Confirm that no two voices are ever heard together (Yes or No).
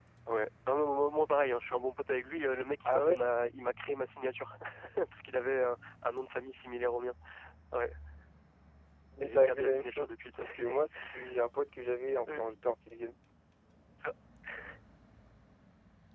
No